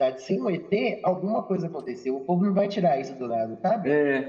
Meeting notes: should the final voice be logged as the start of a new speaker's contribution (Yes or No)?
No